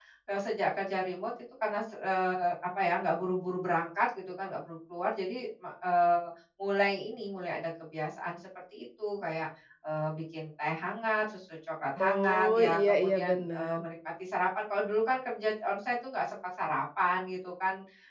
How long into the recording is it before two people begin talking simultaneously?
12.0 s

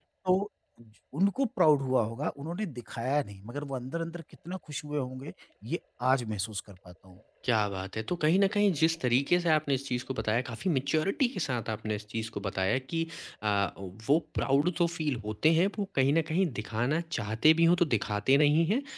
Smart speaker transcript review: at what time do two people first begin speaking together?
none

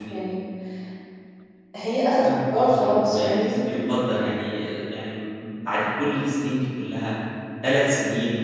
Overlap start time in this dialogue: 2.2 s

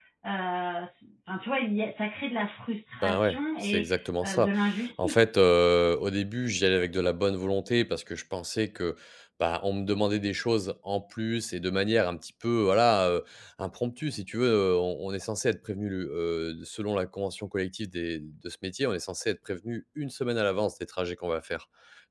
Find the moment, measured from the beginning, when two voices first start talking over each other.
3.0 s

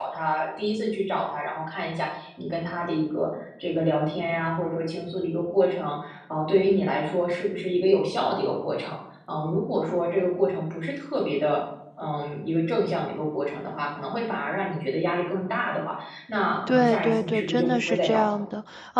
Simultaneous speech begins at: 16.7 s

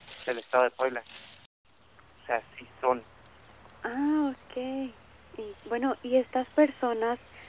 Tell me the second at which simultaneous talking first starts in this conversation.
none

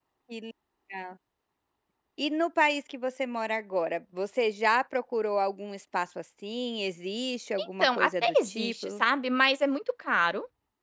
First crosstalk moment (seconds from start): 7.6 s

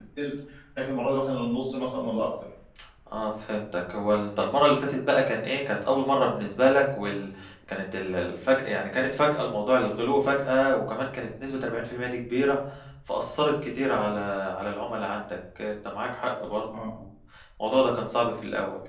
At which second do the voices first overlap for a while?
none

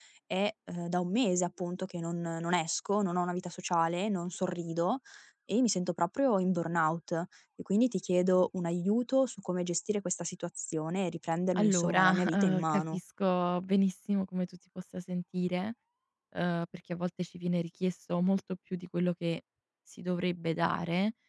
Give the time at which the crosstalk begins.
11.6 s

